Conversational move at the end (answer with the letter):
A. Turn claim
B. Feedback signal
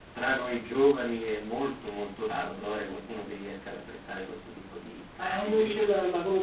A